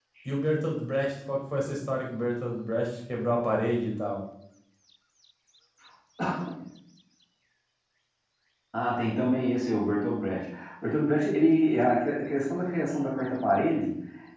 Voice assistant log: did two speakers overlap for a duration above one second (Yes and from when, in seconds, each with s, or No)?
No